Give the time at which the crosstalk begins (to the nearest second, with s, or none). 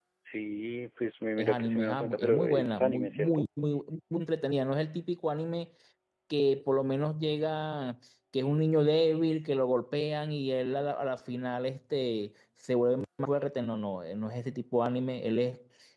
1 s